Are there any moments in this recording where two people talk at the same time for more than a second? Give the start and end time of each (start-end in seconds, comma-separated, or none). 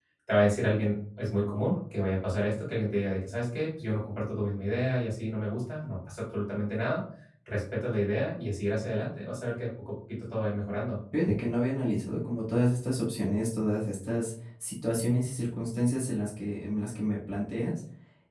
none